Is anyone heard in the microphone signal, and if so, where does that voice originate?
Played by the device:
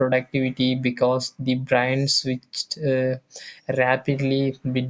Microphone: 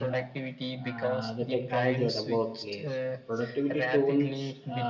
both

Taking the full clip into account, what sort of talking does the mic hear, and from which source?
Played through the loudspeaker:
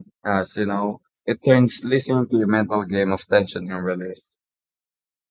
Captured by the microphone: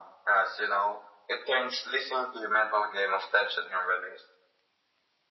echo only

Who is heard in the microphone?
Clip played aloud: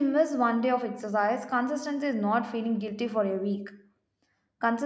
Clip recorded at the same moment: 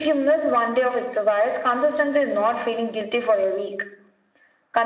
echo only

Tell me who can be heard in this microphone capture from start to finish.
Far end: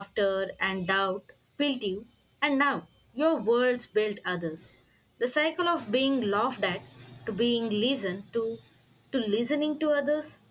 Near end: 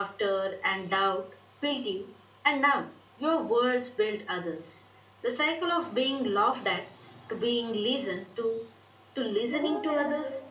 both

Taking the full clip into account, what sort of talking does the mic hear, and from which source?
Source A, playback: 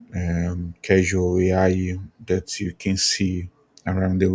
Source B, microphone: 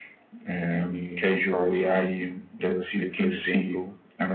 both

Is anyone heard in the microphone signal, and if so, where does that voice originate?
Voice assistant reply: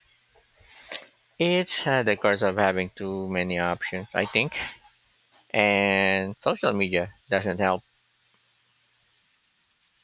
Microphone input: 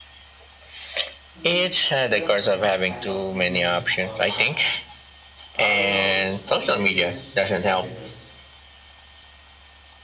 both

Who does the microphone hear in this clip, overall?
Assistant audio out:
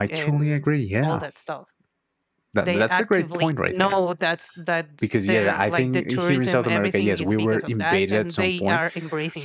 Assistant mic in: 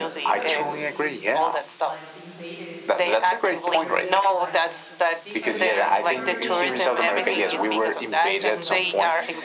both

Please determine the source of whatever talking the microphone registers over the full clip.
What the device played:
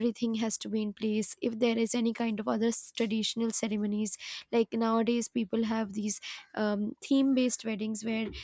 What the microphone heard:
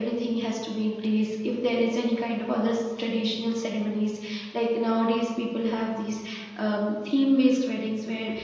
echo only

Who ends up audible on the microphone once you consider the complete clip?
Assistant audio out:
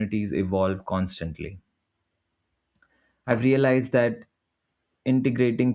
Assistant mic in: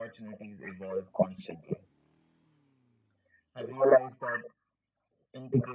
echo only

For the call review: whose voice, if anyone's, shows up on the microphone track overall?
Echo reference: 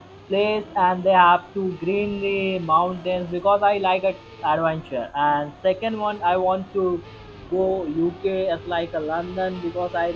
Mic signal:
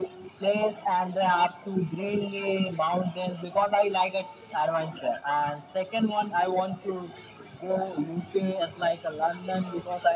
echo only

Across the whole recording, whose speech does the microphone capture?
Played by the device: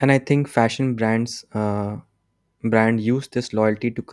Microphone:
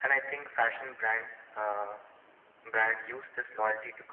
echo only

